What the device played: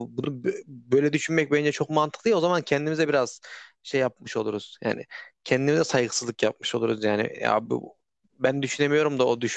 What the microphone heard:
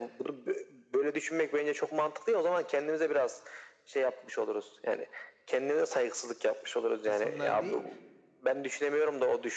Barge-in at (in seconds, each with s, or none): 7.0 s